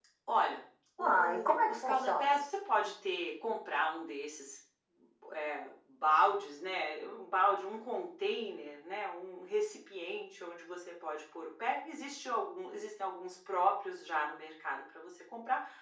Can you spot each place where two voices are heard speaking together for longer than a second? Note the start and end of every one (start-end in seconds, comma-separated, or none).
1.0-2.4